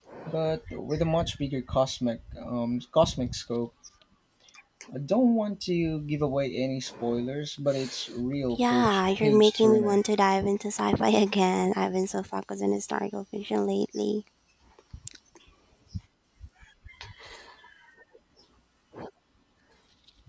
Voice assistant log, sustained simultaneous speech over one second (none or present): present